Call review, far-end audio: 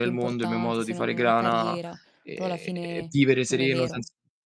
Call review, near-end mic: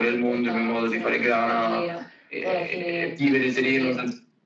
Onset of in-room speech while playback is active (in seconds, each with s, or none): none